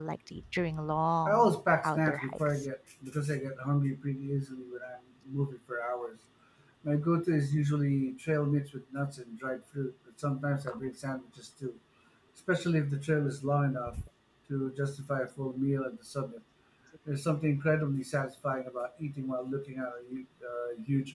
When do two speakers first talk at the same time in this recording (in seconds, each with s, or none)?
1.2 s